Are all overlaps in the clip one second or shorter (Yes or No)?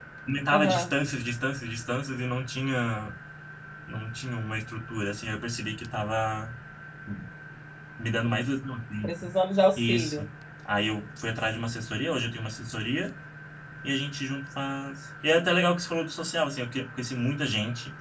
Yes